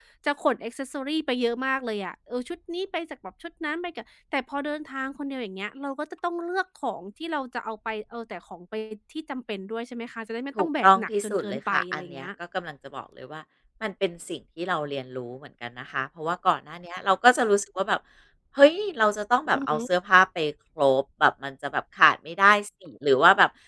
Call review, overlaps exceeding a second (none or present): present